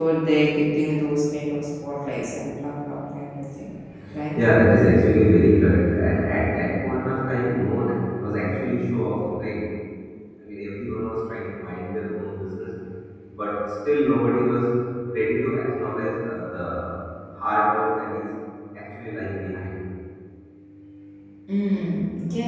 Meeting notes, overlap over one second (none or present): none